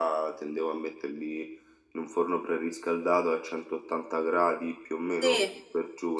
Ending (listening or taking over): taking over